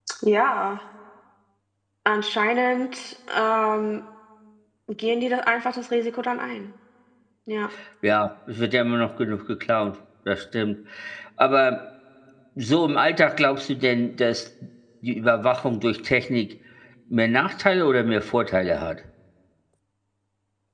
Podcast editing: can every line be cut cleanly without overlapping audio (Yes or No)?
Yes